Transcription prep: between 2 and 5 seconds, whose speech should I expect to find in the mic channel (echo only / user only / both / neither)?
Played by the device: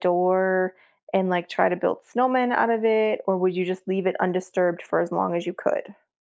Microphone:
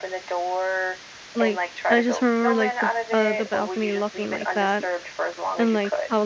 both